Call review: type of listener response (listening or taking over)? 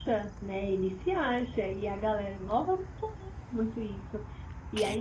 listening